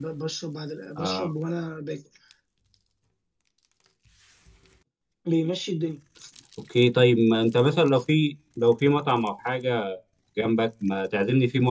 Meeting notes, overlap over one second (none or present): none